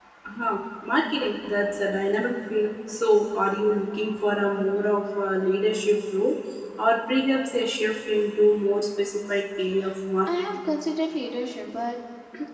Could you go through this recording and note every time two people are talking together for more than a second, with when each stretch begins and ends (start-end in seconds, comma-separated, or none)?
none